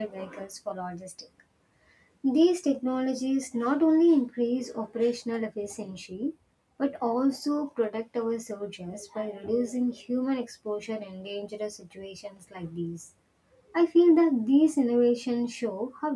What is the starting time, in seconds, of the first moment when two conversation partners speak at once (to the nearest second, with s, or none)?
none